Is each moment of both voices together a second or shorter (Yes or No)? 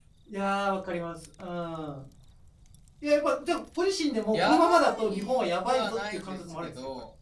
No